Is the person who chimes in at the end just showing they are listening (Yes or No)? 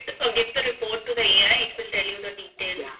No